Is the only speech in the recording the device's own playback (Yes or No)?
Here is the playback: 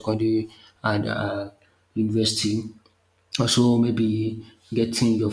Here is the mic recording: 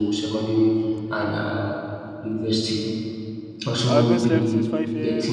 No